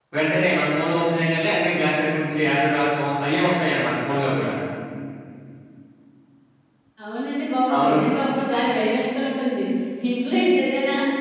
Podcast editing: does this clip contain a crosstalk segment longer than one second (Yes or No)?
No